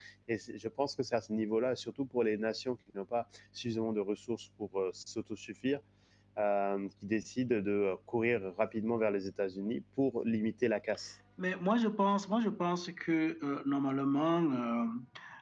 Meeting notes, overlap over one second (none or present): none